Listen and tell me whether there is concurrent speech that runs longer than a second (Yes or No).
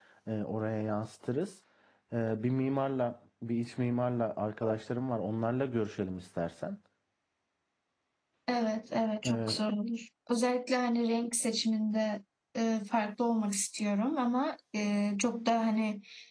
No